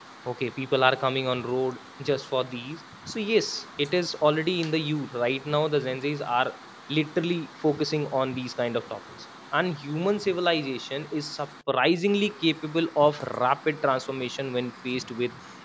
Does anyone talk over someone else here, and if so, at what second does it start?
none

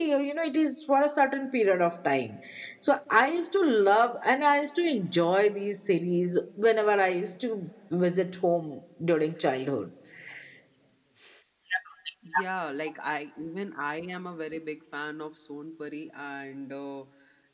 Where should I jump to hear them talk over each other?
none

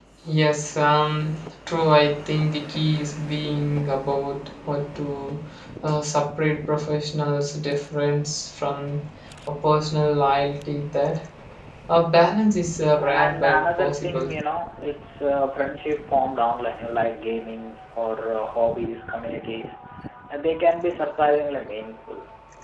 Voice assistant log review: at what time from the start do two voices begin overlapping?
13.0 s

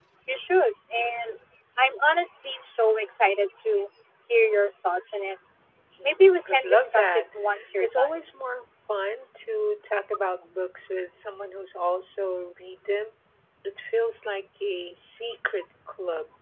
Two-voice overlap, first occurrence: 6.0 s

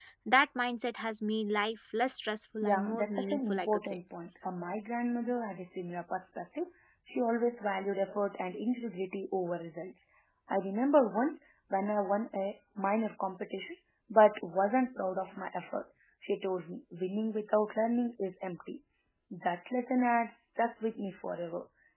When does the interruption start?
2.6 s

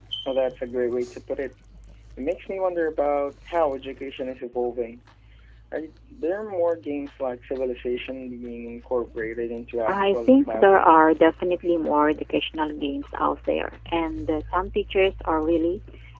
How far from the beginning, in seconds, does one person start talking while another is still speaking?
9.9 s

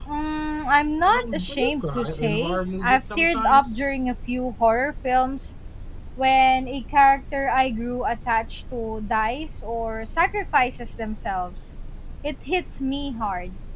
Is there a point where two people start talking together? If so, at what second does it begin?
1.0 s

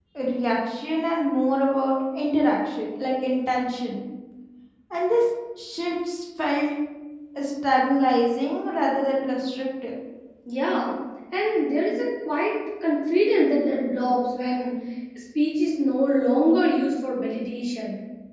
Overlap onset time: none

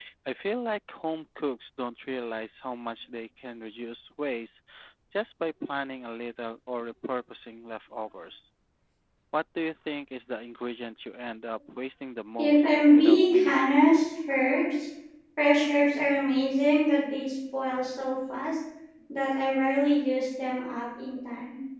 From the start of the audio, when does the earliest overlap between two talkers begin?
12.4 s

